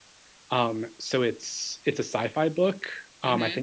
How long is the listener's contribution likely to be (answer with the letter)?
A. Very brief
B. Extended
A